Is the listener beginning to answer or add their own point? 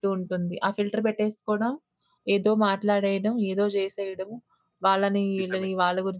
No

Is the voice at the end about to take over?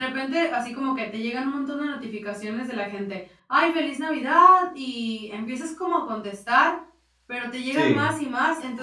No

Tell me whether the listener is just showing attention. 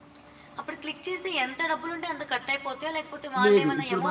No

